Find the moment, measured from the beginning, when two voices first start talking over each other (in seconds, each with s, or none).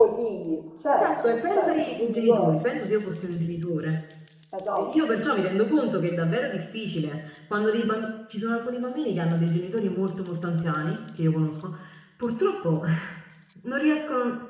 0.9 s